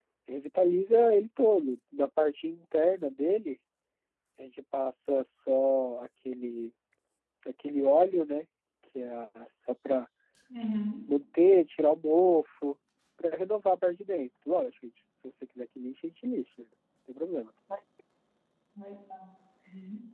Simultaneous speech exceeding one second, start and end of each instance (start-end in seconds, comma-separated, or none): none